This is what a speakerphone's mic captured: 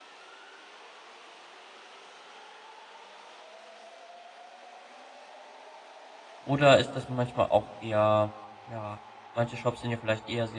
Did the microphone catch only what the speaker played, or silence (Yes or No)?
No